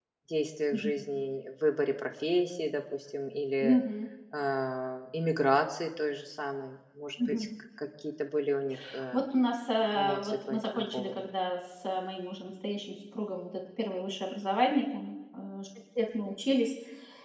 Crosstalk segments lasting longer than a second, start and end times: 9.9-11.2

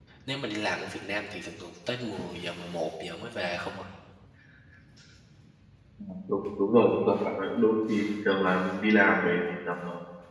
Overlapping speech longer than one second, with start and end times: none

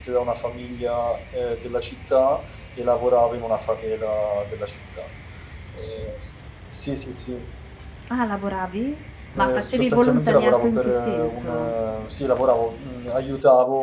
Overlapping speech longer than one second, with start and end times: 9.4-11.7

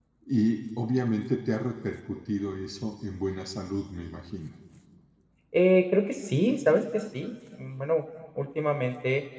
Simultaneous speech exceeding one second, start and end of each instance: none

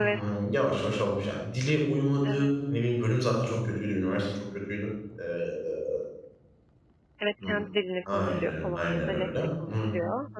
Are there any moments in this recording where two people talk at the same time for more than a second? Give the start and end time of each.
8.1-9.9

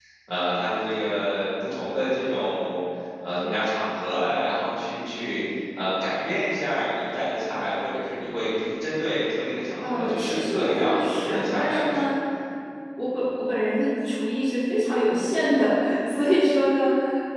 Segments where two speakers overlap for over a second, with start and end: 9.8-12.2

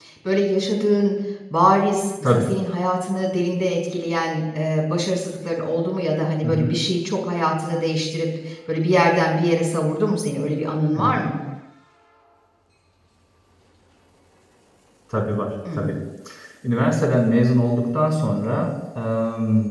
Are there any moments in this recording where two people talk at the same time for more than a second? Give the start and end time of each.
none

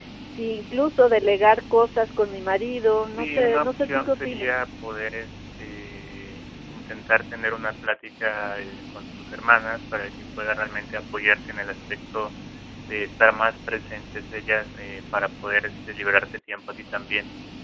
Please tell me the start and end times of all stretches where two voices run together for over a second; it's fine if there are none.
3.0-4.5

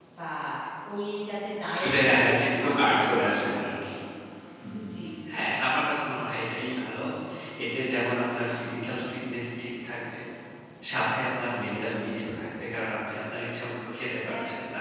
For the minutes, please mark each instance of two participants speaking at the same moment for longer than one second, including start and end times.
1.8-3.9

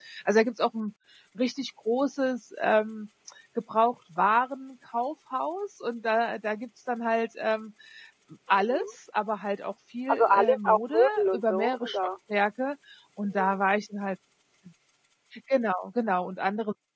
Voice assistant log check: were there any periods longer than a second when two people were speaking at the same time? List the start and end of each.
10.1-12.0

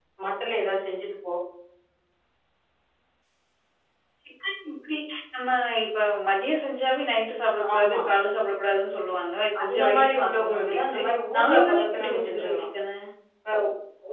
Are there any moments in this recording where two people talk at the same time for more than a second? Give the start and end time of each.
9.6-11.0, 11.4-12.7

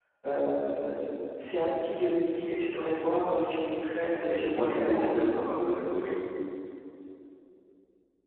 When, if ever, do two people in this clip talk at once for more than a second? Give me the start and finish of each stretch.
4.1-5.4

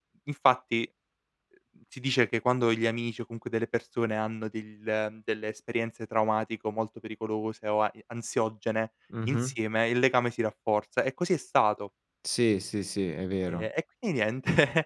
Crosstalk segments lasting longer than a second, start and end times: none

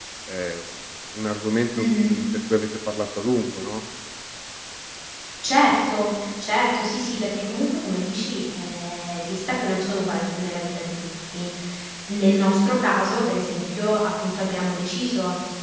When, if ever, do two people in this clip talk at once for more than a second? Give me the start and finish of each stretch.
none

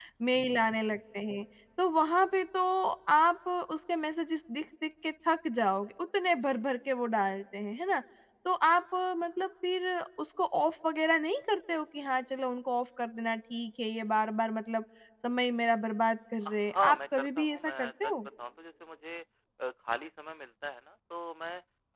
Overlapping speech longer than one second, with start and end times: 16.4-18.1

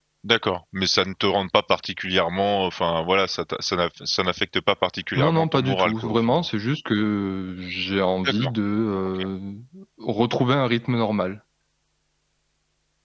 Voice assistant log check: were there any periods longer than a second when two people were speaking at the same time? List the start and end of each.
5.2-6.4

